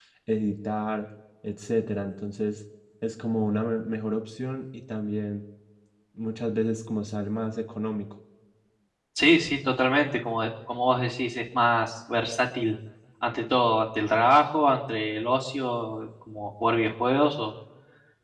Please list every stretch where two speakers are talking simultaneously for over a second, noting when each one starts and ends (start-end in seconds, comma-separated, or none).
none